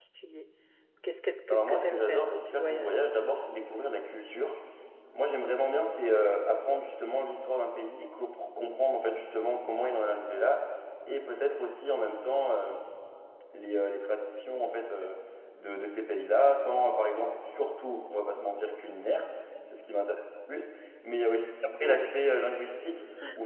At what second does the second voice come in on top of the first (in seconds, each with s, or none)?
1.5 s